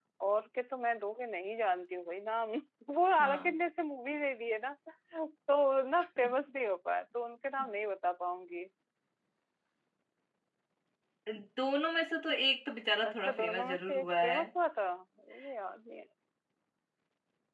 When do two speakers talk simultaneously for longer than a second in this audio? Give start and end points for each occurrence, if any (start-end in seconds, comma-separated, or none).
13.0-14.4